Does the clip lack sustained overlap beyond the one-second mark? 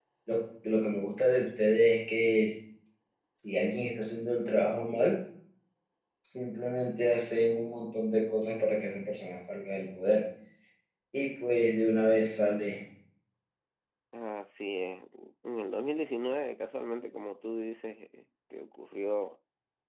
Yes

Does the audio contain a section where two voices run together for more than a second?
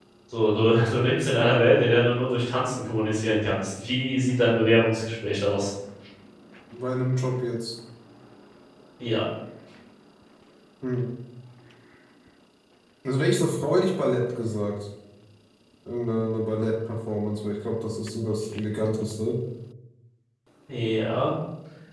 No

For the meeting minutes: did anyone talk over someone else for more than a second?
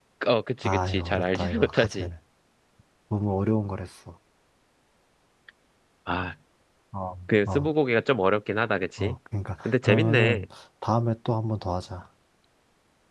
Yes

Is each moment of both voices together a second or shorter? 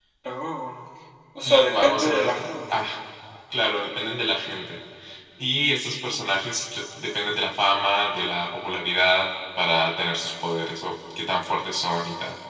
No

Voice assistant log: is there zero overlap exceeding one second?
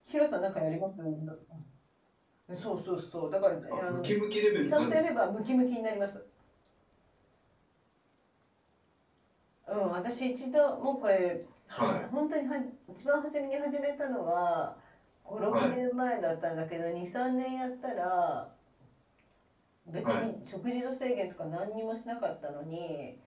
Yes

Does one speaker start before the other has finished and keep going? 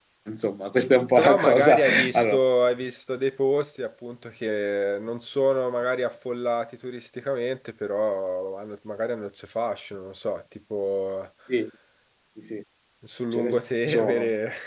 Yes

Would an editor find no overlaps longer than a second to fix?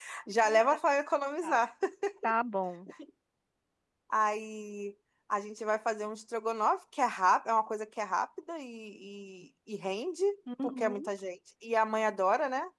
Yes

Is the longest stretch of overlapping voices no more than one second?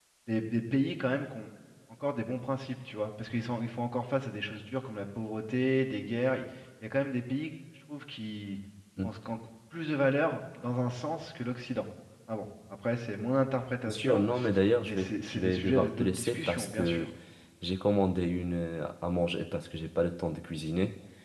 No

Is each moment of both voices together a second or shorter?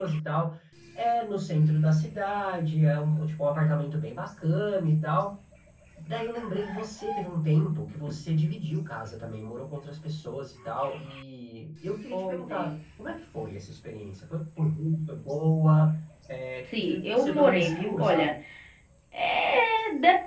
No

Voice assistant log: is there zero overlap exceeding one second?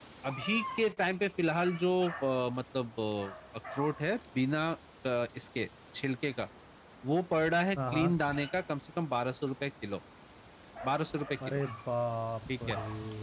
Yes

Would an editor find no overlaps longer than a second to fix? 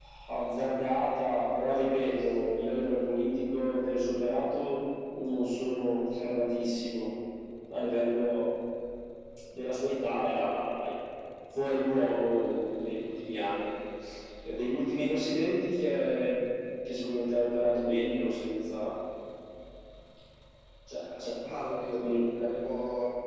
Yes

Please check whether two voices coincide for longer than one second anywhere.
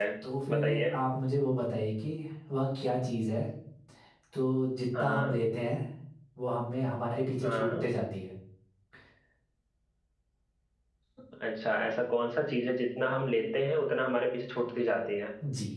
No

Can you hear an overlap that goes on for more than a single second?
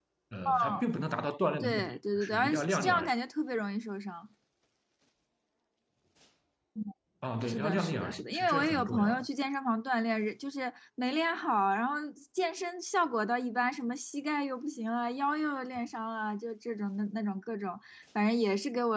Yes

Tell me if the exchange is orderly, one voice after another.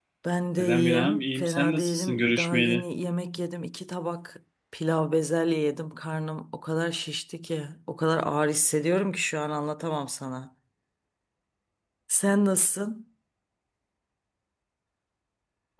No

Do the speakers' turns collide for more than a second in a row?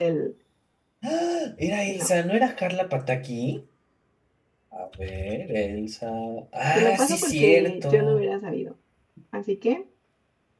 Yes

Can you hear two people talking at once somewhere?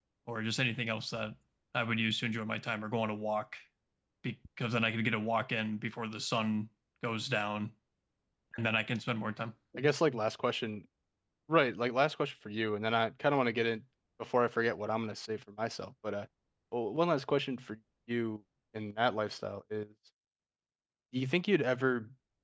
No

